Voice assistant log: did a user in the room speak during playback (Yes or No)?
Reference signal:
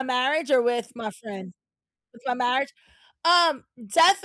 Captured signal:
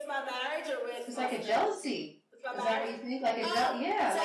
Yes